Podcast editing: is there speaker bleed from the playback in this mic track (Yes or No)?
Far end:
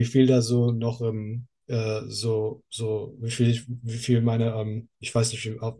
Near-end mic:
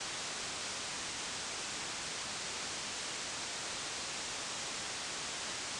No